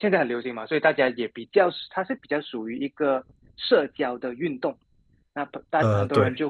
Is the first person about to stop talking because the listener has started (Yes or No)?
No